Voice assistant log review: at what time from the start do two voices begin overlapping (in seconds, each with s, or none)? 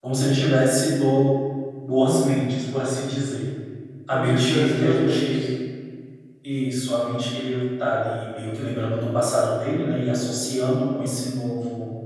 4.1 s